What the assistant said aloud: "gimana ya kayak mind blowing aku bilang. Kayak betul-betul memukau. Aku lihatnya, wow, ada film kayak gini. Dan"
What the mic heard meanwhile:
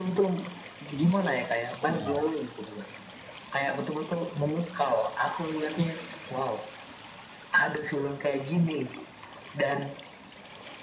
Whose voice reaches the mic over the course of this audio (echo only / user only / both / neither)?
both